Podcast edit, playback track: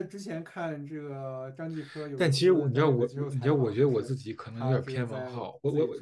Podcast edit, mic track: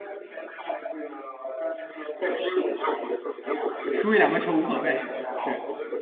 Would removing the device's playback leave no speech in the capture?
No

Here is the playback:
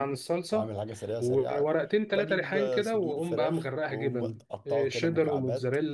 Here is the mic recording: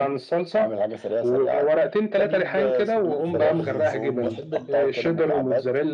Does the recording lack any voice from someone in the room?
No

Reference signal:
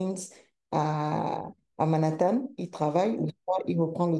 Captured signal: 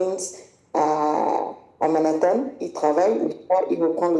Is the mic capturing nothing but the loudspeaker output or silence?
Yes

